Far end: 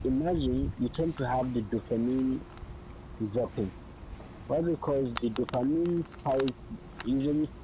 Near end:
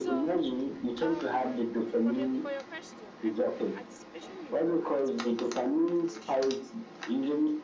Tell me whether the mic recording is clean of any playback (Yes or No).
No